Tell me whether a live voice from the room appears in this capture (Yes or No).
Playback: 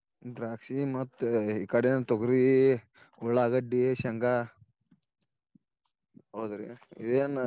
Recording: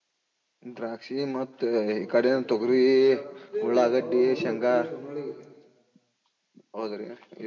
Yes